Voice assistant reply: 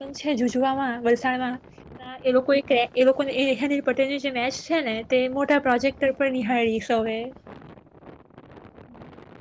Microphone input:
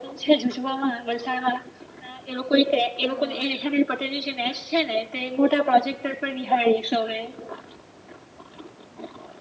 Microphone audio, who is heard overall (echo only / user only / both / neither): both